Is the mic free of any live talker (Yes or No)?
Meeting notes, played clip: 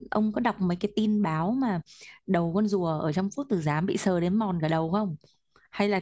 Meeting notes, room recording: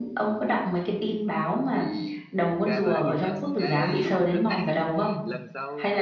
No